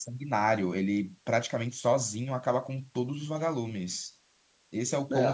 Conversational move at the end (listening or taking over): listening